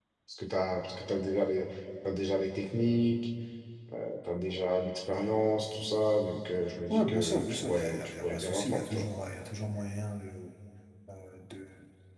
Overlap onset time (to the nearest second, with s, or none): 7 s